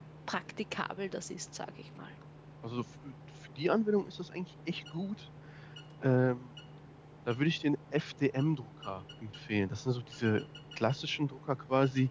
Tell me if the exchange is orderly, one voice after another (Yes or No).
Yes